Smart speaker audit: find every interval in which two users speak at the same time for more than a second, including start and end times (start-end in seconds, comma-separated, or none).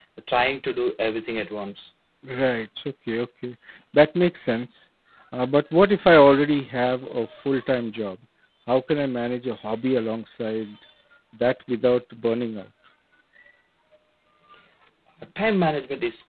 none